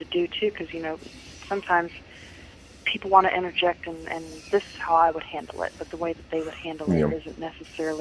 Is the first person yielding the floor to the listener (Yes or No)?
No